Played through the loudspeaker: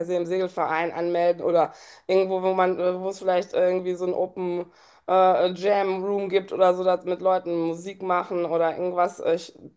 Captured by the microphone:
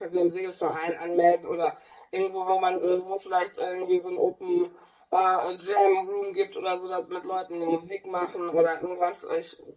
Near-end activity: none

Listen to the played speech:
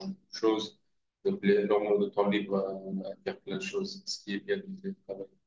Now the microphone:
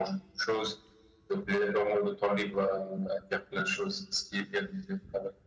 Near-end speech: none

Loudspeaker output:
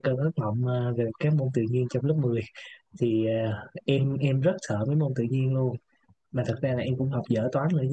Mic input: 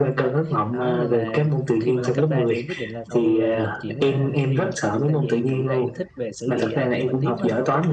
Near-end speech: present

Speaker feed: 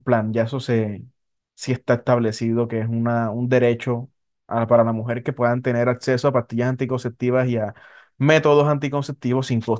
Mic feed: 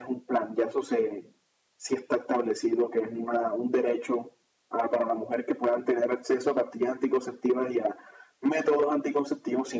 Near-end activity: none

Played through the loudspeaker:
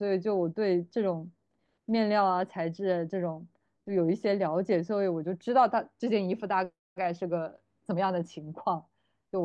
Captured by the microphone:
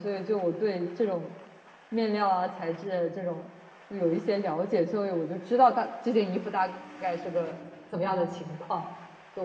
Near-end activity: none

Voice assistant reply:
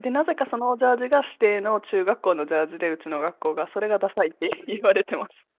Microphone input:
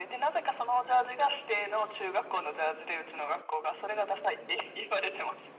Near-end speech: none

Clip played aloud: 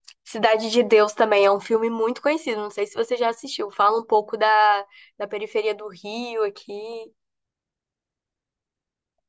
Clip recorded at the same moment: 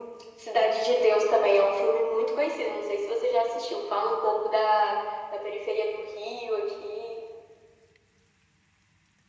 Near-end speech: none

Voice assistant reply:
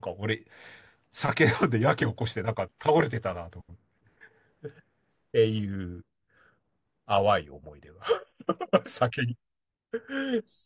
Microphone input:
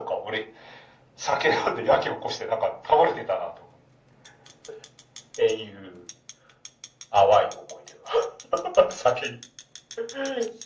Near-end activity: none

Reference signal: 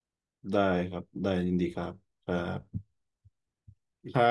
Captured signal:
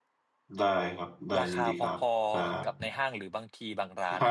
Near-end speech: present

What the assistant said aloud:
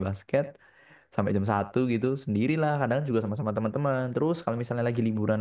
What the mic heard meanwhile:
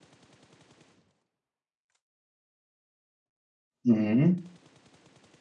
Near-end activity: present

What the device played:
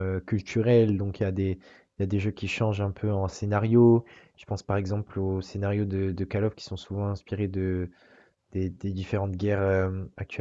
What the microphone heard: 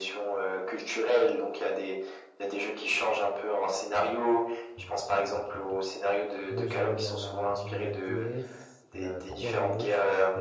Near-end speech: present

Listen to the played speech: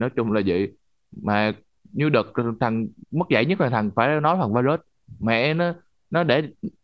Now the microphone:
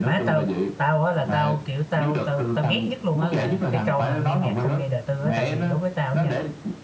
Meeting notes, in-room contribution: present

